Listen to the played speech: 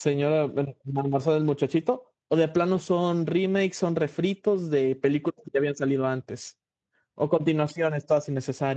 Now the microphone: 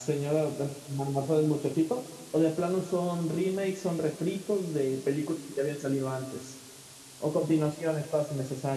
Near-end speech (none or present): none